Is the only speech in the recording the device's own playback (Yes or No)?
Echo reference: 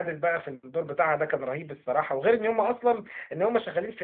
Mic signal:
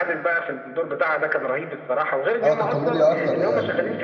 No